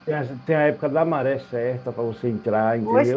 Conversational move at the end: taking over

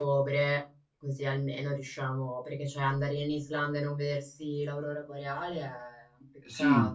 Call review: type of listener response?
taking over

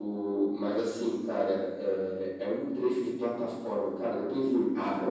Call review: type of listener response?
listening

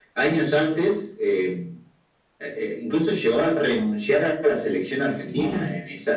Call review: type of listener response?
listening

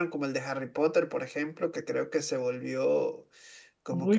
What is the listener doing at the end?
taking over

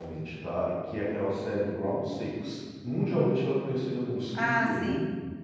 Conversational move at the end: taking over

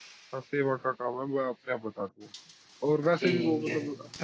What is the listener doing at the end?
listening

